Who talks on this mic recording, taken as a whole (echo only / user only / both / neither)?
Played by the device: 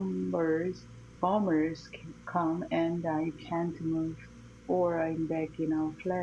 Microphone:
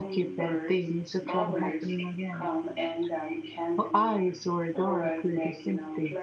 both